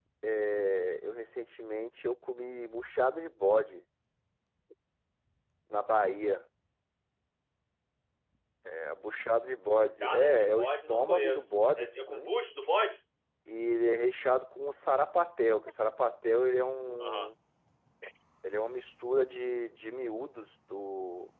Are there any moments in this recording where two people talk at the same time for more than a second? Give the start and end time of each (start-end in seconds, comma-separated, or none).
10.0-12.3